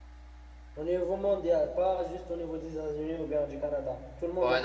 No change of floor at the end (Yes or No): No